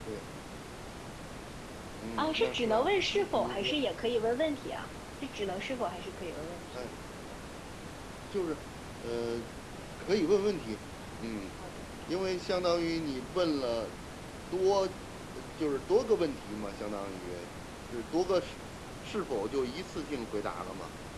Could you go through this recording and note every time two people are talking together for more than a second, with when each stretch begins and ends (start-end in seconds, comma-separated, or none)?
2.2-3.7